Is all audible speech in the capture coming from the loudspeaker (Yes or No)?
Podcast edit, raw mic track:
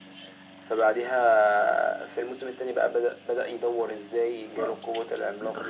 No